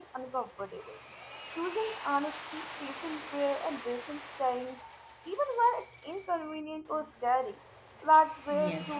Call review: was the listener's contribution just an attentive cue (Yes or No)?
No